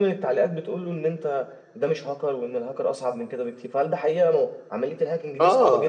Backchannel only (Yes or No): No